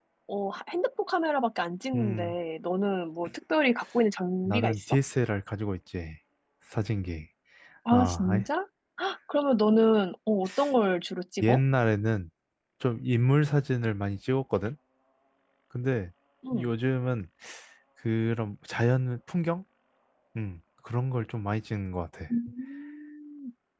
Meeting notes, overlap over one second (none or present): none